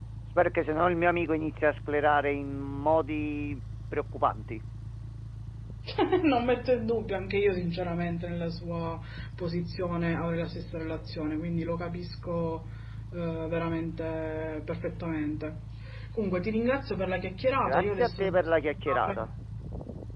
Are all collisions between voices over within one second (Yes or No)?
No